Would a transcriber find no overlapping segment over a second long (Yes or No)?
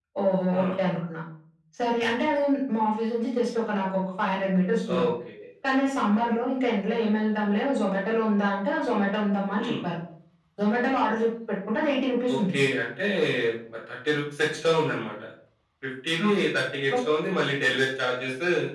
Yes